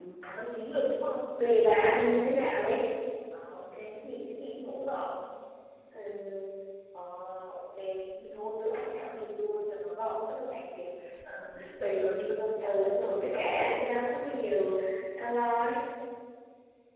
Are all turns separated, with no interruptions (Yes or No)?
No